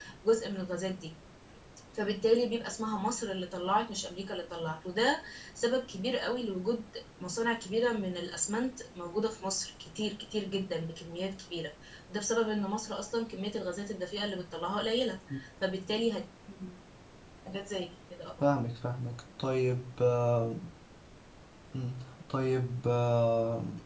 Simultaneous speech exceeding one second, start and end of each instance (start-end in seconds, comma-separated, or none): none